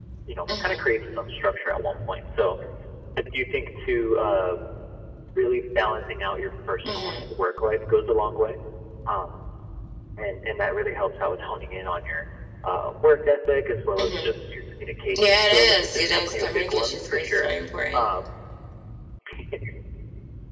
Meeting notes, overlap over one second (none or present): present